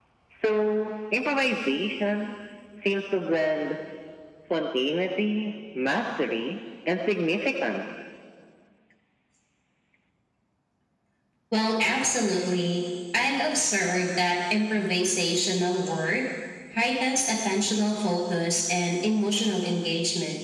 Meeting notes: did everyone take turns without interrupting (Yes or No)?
Yes